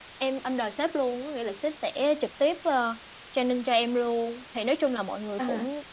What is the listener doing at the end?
listening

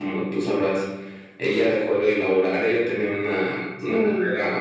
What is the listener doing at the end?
listening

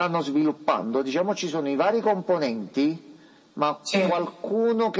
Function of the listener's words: listening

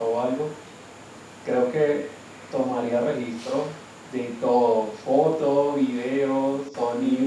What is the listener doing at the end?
taking over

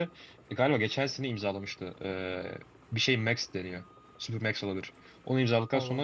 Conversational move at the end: listening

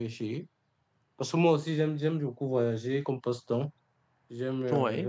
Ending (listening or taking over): listening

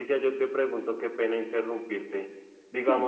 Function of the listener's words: listening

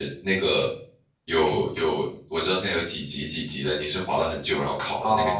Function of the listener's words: taking over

